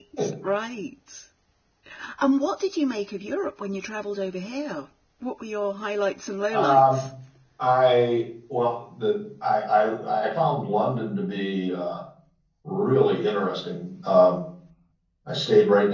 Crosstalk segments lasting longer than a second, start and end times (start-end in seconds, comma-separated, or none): none